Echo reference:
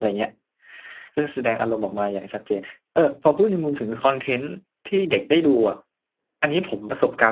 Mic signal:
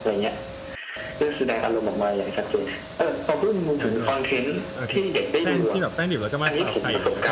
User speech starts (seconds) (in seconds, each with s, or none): 3.8 s